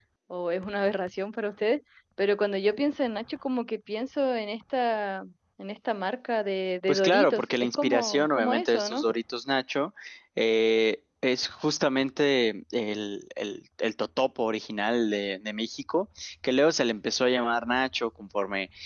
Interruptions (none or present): present